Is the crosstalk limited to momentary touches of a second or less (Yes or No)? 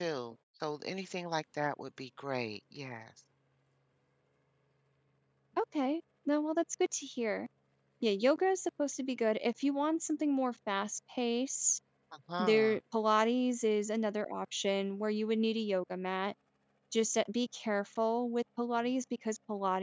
Yes